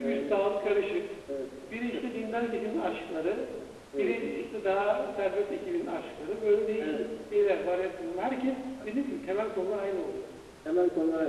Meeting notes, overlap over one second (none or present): none